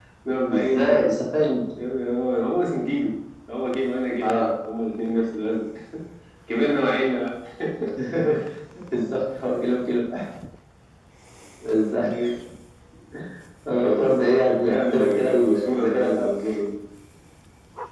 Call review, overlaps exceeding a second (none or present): present